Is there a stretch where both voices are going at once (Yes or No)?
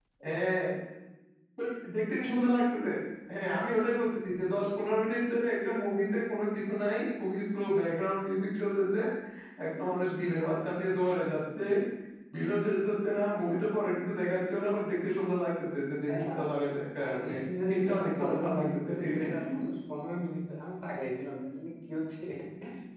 Yes